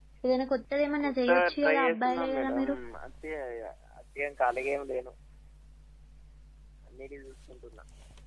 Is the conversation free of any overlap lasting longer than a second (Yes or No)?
No